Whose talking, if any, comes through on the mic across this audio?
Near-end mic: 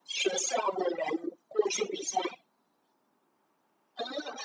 echo only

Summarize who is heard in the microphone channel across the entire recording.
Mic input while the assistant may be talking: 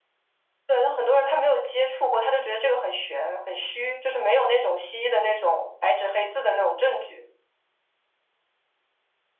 echo only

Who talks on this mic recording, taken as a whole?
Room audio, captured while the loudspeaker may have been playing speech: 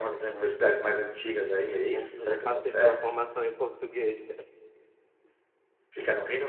both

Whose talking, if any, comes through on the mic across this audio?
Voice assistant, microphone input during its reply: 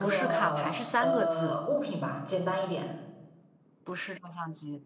both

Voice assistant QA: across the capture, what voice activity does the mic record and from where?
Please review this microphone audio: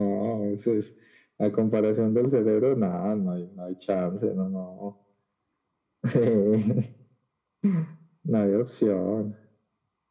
echo only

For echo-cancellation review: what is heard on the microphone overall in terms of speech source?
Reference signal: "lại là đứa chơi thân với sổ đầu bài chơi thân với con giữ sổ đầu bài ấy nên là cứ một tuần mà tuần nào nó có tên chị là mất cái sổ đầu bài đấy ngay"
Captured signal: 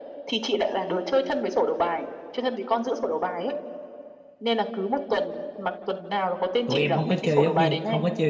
both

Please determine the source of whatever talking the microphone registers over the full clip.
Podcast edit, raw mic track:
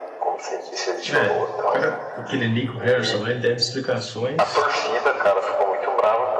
both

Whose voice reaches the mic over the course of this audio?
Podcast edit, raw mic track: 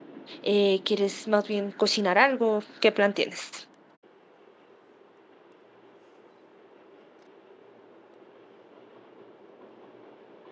user only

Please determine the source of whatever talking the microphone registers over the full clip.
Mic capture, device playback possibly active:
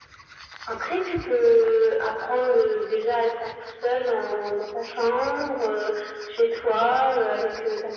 echo only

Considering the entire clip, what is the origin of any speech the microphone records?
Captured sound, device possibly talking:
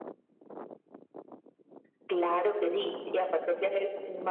echo only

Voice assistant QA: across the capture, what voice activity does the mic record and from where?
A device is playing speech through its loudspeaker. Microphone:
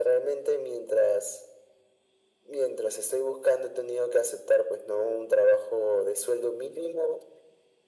echo only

